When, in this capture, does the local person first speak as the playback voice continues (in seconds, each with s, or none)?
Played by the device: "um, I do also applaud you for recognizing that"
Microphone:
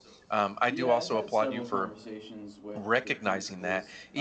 0.7 s